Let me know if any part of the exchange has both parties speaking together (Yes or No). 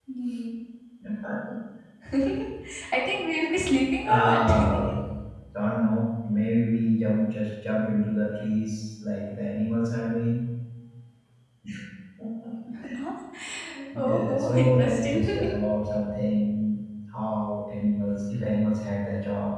Yes